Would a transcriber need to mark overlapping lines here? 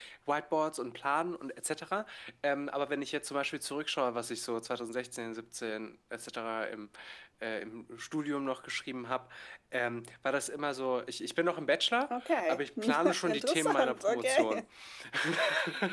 Yes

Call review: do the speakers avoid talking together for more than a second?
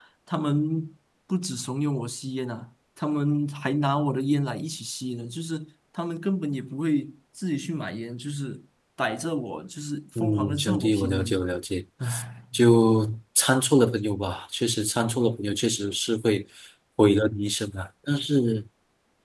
No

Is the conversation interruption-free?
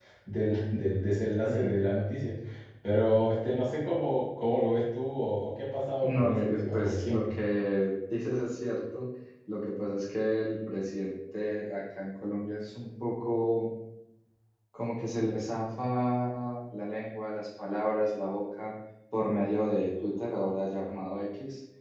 No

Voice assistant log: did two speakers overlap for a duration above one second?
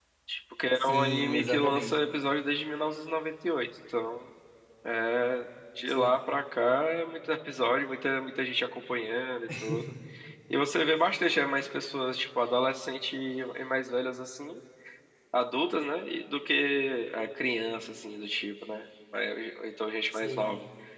Yes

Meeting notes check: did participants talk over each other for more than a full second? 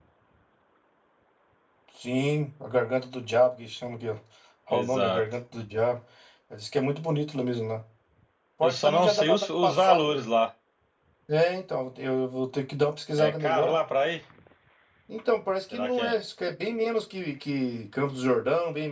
Yes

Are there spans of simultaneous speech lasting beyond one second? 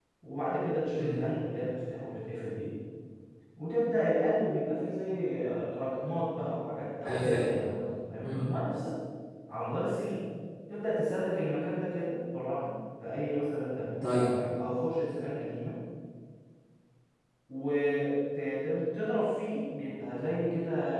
No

